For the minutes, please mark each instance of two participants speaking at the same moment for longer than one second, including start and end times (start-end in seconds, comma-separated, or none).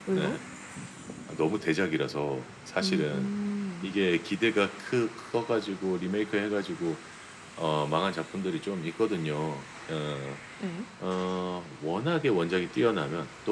none